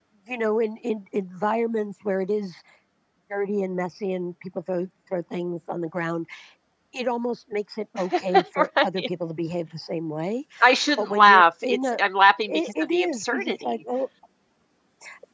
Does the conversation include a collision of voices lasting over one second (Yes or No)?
Yes